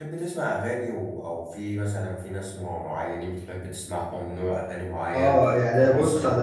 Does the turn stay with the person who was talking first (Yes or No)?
No